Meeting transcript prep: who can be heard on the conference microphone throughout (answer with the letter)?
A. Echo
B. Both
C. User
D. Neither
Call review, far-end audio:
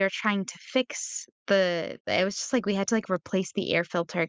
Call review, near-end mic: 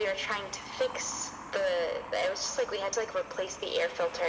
A